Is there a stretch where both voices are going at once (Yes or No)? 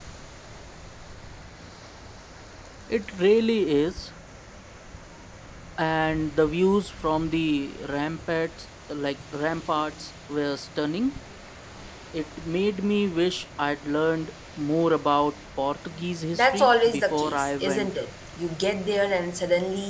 Yes